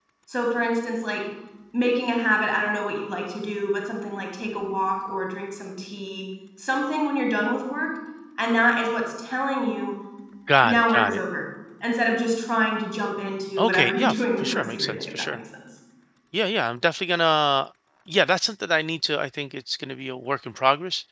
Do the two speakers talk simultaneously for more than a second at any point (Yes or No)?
Yes